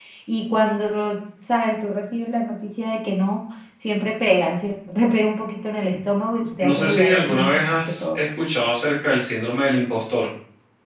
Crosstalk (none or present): present